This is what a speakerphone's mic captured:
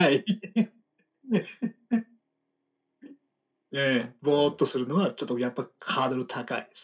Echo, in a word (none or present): present